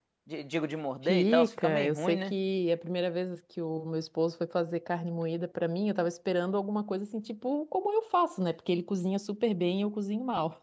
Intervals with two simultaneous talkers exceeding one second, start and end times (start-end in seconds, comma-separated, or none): 1.0-2.3